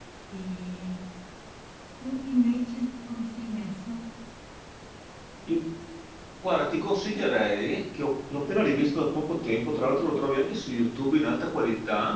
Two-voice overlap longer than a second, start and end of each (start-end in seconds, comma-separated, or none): none